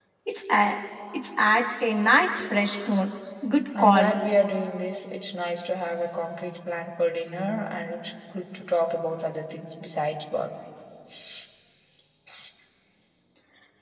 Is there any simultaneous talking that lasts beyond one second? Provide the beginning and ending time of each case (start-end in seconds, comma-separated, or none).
none